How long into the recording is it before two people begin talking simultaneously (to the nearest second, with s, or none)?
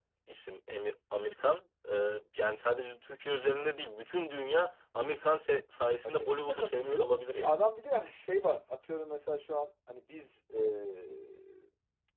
6 s